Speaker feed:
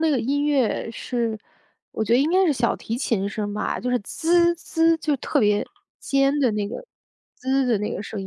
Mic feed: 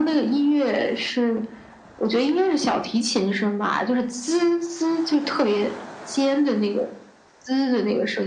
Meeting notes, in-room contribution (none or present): none